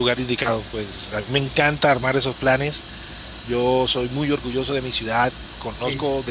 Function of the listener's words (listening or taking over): listening